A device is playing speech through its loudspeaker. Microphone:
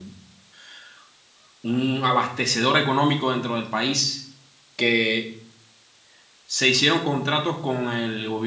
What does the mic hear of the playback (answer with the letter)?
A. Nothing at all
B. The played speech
A